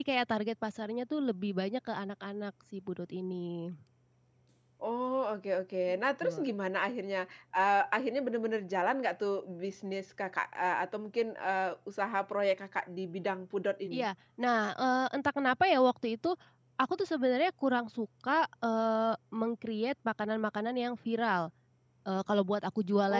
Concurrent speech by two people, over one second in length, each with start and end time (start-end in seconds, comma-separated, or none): none